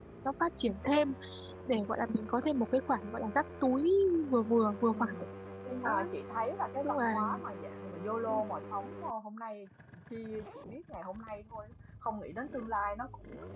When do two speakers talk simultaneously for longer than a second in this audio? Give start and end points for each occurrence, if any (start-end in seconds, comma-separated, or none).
none